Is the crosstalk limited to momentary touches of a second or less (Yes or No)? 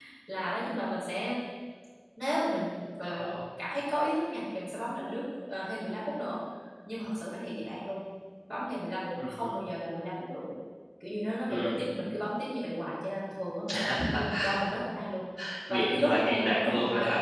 No